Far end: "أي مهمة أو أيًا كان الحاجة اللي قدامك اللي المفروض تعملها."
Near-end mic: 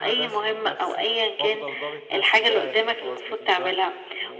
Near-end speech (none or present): present